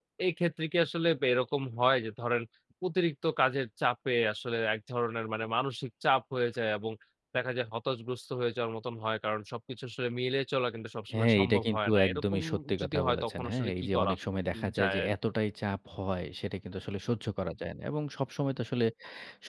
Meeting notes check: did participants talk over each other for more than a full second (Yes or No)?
Yes